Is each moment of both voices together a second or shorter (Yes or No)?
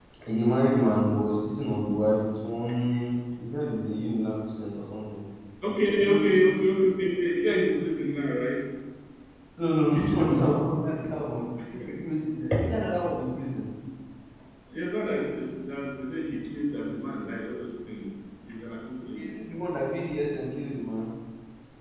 Yes